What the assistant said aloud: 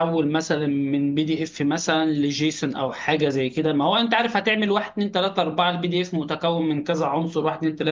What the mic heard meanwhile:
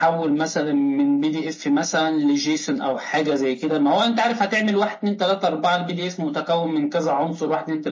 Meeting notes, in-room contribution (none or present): none